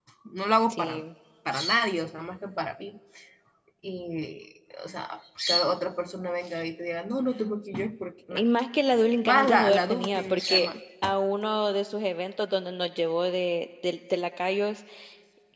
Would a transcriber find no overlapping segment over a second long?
No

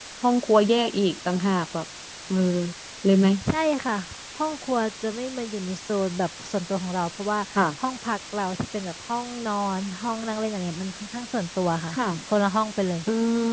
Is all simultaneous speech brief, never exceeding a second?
Yes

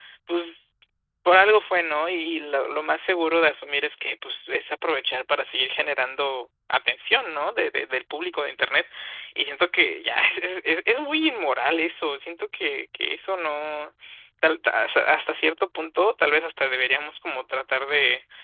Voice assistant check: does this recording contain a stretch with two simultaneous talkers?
No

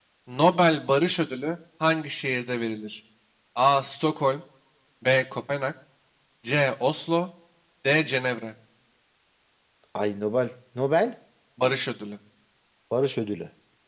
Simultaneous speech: No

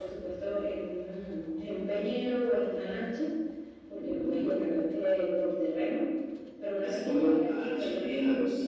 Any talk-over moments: Yes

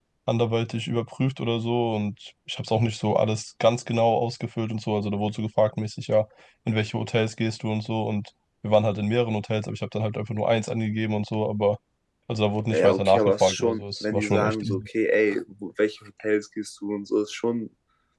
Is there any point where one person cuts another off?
Yes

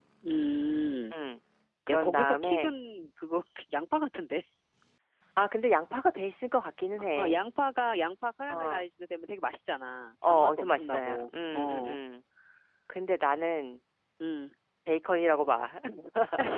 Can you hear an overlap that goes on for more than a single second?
Yes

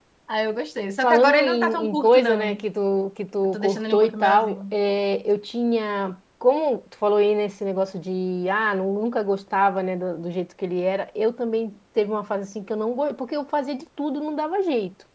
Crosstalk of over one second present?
Yes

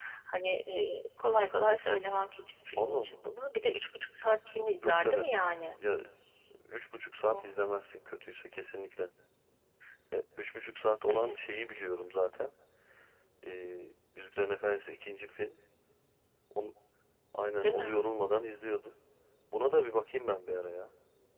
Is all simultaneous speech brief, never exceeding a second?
Yes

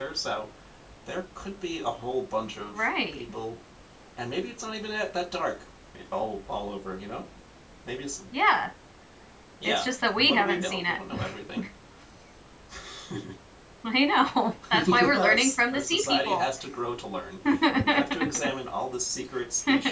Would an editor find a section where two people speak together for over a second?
Yes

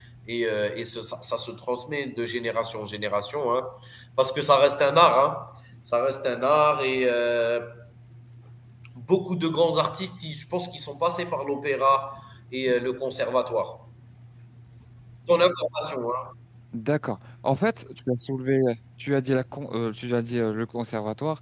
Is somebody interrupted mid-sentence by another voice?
No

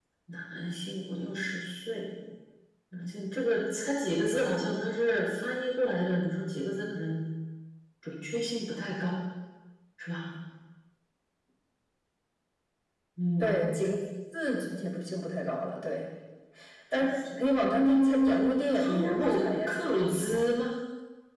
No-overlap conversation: No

